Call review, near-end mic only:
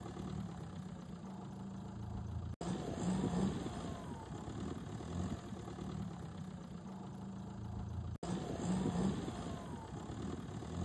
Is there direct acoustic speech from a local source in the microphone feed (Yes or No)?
No